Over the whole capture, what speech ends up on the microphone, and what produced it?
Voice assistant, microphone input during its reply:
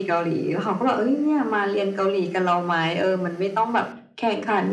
echo only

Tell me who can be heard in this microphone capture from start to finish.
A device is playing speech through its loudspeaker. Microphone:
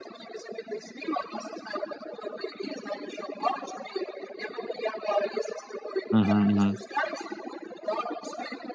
both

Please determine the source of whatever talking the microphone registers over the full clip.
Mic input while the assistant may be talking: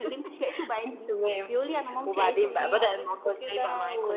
echo only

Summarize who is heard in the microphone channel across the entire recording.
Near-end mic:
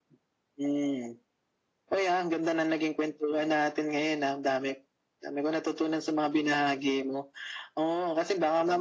echo only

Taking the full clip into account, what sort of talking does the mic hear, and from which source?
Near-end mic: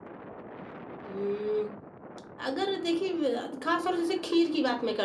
echo only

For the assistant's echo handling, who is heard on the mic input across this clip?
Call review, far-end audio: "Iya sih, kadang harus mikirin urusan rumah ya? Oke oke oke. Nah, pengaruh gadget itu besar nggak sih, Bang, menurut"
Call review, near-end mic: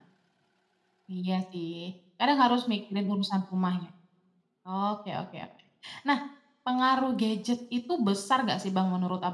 echo only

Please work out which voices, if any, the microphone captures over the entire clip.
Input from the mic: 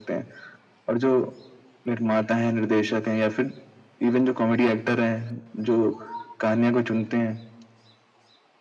echo only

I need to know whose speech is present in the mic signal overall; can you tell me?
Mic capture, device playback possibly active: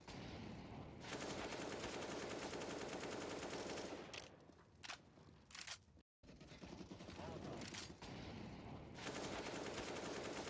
neither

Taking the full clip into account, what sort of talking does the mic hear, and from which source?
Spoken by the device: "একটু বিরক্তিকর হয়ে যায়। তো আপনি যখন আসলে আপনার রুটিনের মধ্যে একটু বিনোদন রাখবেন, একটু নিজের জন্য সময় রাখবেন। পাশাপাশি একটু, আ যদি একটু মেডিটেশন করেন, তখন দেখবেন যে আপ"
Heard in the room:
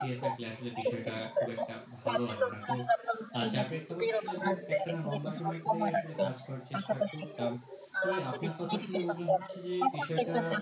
both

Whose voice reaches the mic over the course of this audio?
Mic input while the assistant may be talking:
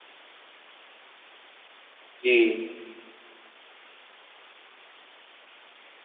user only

